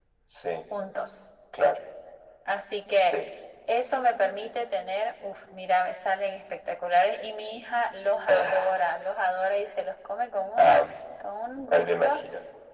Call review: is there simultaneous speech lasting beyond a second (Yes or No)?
No